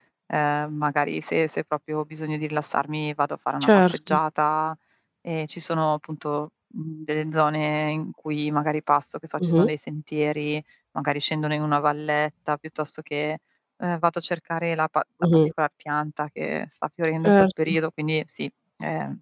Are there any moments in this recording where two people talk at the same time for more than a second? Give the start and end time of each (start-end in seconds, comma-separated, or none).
none